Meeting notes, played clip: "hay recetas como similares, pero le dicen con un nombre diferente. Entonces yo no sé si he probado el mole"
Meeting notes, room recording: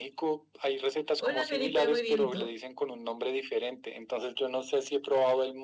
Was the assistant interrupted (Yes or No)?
Yes